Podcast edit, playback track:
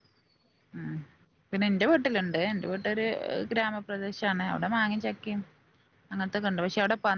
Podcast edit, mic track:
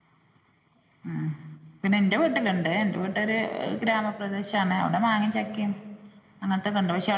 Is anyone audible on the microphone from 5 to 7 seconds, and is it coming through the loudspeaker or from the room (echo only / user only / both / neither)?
echo only